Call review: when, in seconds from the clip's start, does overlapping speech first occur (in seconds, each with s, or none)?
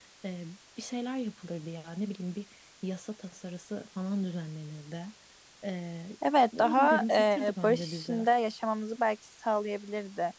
6.6 s